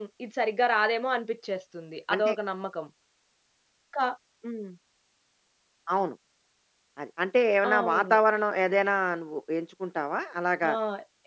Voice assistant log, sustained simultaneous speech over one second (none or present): none